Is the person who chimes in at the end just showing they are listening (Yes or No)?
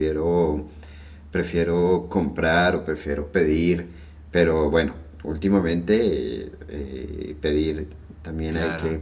No